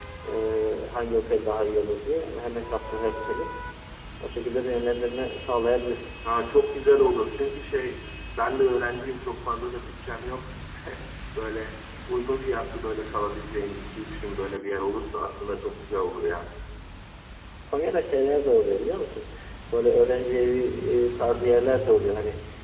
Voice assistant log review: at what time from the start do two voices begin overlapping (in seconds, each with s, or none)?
none